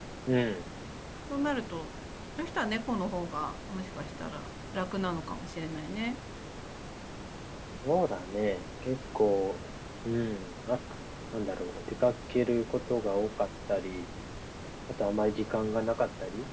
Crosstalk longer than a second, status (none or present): none